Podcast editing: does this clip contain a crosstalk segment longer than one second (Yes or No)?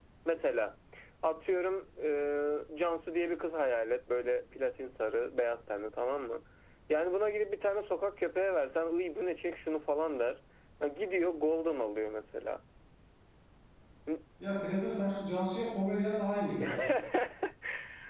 No